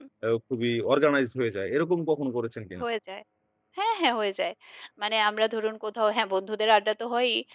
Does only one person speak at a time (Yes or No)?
Yes